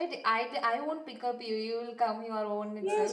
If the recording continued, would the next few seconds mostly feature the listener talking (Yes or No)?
Yes